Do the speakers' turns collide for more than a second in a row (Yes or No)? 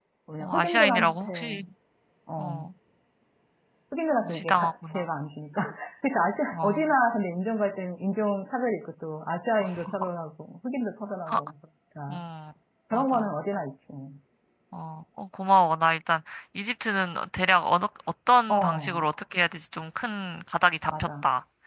Yes